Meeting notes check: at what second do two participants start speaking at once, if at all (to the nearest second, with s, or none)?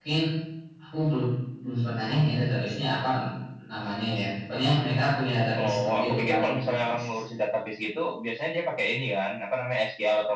6 s